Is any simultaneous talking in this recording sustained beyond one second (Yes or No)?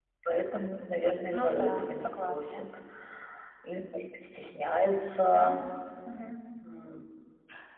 Yes